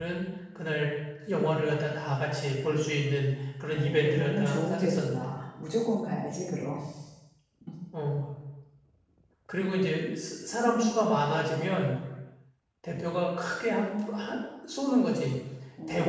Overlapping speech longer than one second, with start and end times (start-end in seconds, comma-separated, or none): 3.7-5.2